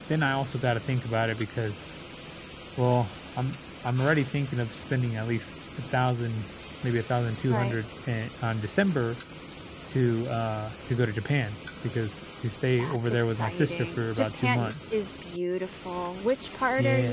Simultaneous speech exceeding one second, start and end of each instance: 12.8-14.9

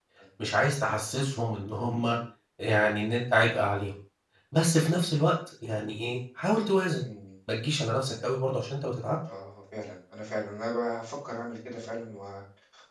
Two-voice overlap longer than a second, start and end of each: none

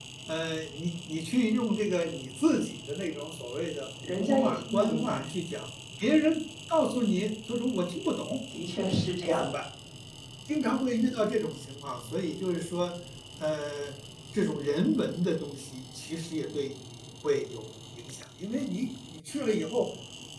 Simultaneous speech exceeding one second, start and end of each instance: 4.0-5.3

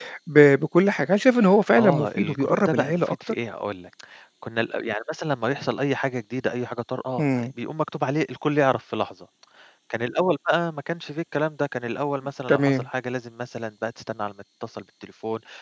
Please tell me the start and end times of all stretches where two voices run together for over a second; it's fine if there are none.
1.8-3.2

